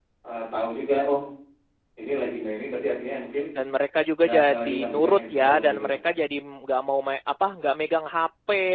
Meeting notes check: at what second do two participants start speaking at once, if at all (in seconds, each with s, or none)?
4.2 s